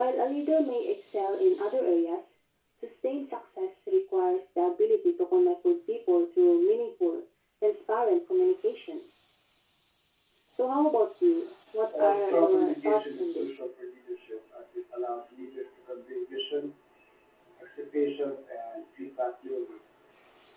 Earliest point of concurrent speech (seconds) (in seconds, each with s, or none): 11.9 s